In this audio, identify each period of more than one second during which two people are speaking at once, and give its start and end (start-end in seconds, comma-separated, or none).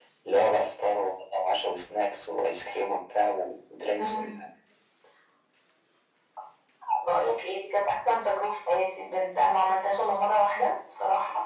none